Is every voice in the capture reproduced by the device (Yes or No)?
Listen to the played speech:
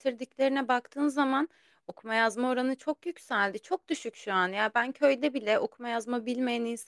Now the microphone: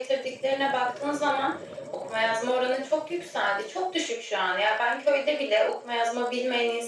Yes